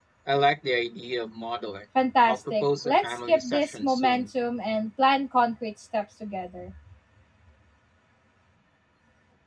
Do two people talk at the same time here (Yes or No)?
Yes